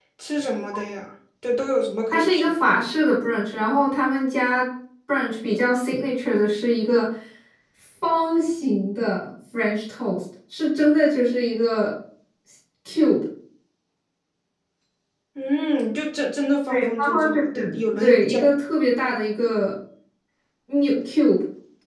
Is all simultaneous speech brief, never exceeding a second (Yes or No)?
No